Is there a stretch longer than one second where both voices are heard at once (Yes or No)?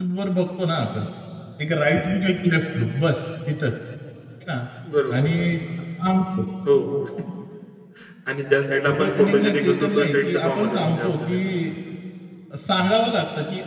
Yes